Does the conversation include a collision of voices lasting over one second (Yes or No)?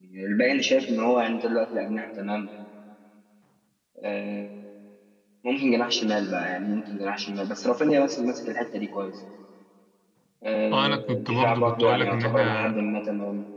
Yes